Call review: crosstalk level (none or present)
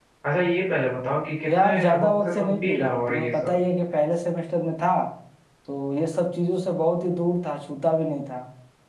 present